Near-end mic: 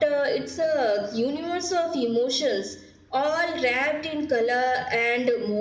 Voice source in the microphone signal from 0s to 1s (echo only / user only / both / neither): echo only